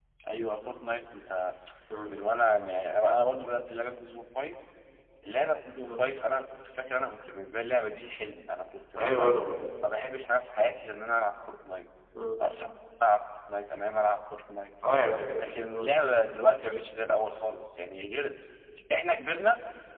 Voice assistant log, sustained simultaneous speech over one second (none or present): none